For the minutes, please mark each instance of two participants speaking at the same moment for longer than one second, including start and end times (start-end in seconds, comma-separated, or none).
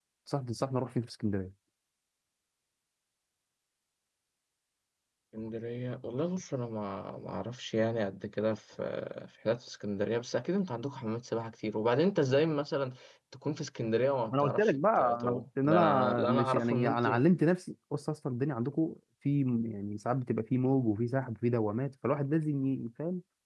14.3-17.2